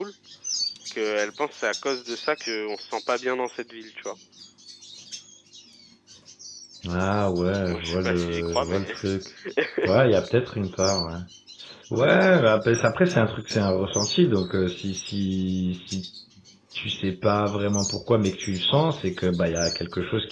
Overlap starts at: 7.7 s

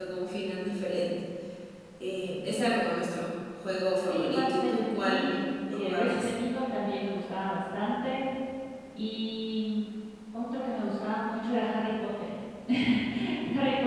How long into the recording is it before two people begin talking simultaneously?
4.1 s

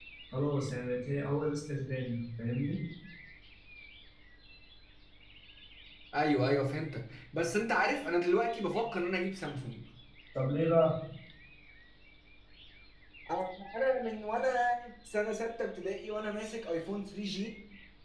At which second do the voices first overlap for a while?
none

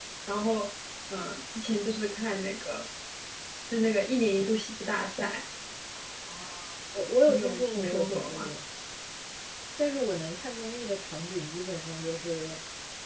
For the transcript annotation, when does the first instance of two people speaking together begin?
7.3 s

